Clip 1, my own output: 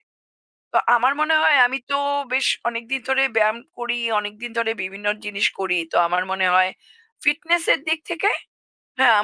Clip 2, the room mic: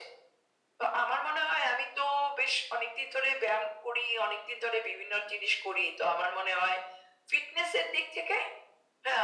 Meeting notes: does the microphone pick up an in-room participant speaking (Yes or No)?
No